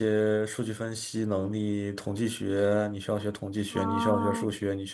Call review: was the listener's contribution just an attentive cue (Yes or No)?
Yes